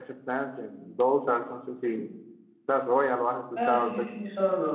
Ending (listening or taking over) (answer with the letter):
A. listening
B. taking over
B